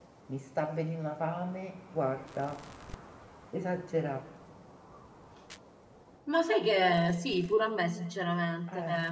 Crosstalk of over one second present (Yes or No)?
No